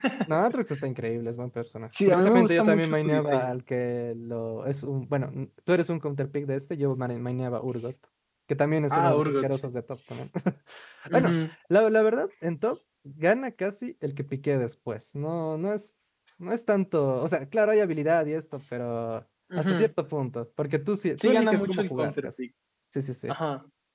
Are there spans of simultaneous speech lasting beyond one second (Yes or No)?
Yes